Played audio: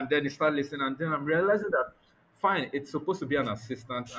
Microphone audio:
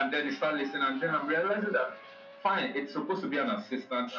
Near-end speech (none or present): none